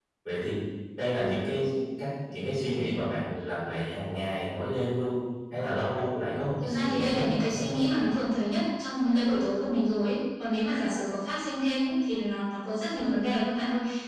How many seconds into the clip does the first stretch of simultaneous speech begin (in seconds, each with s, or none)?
6.6 s